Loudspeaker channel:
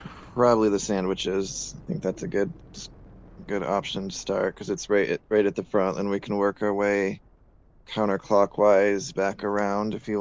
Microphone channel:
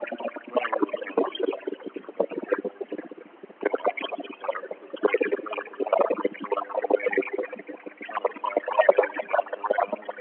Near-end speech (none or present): none